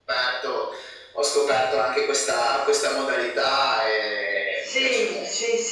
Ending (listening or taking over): taking over